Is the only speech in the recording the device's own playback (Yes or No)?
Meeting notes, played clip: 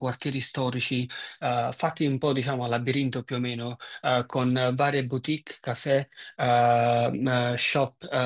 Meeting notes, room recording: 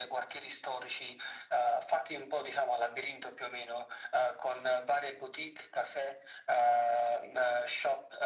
Yes